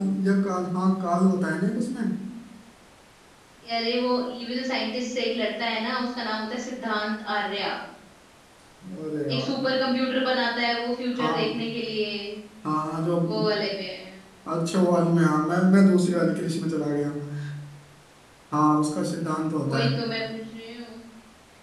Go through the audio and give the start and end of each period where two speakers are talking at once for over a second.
none

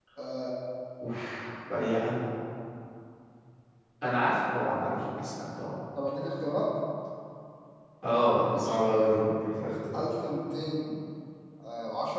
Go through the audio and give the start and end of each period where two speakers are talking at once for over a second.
none

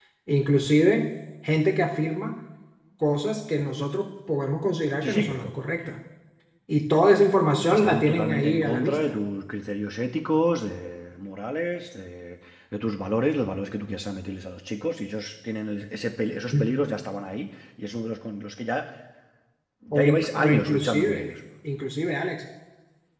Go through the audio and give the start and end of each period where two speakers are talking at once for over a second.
7.7-9.2, 19.9-21.2

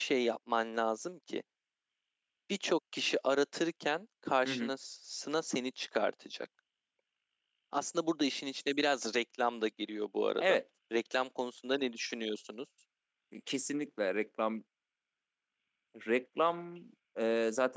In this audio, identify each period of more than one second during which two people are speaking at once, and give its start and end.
none

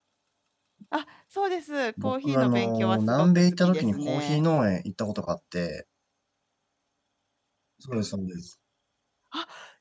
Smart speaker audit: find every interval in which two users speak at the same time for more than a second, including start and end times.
2.0-4.4

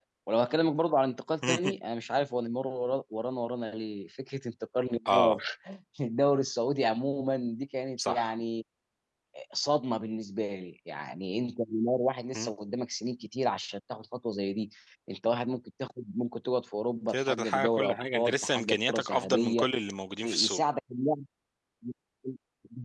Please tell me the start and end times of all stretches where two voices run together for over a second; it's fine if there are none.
17.1-19.7

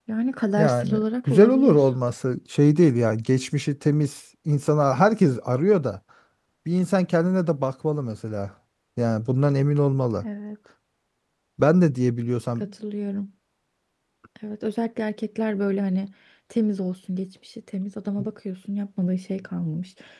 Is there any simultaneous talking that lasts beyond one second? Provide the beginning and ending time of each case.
0.6-1.8

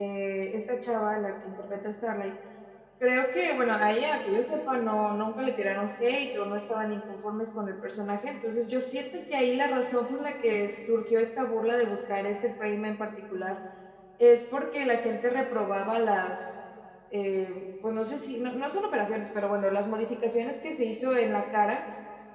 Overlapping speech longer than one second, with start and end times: none

